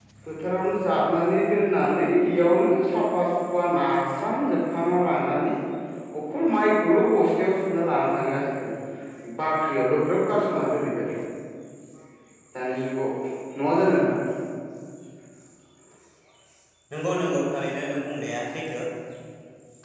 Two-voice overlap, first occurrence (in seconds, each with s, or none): none